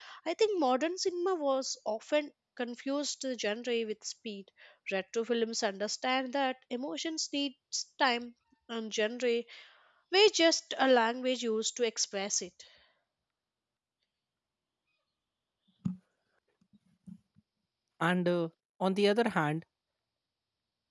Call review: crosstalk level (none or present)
none